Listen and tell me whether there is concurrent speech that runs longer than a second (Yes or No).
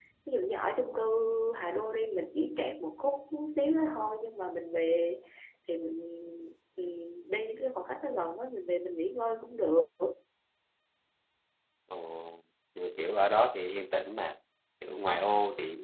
No